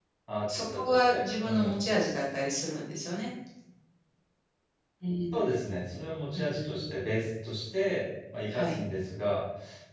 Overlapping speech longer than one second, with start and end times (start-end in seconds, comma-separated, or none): 0.6-1.8